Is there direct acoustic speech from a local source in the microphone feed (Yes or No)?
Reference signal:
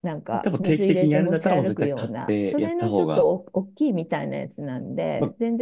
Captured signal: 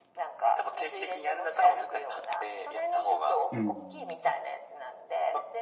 Yes